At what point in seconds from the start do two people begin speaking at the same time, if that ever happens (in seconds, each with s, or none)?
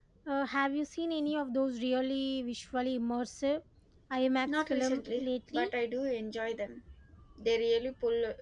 4.5 s